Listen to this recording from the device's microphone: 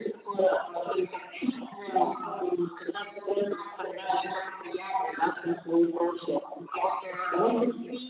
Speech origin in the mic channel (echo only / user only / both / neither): echo only